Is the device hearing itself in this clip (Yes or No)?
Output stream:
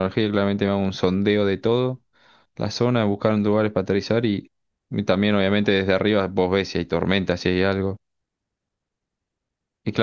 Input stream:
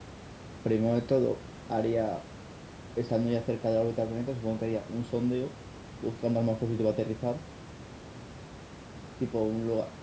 No